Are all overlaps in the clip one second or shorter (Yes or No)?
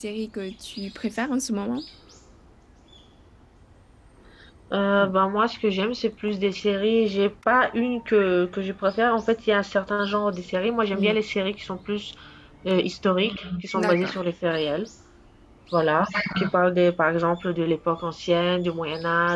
Yes